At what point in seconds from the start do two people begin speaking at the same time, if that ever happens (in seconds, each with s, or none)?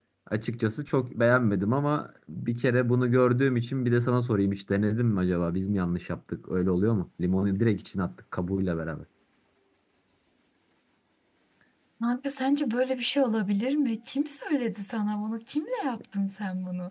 none